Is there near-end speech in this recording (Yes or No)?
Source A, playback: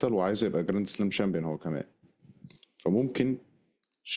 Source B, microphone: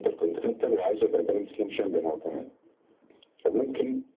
No